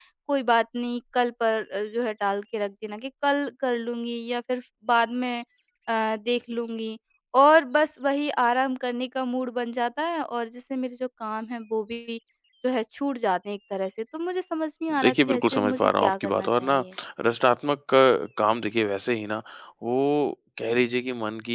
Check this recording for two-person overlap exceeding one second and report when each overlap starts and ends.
15.0-16.8

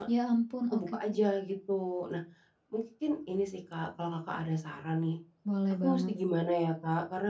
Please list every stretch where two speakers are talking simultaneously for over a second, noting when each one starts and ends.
none

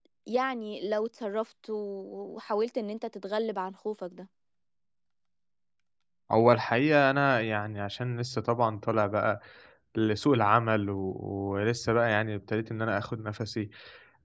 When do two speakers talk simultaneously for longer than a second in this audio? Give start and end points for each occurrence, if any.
none

